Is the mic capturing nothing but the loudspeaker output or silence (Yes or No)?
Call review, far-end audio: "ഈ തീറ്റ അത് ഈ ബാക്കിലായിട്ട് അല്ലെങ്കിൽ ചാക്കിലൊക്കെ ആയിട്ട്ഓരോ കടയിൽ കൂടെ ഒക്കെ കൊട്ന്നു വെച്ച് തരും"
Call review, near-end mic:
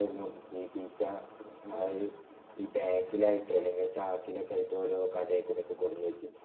Yes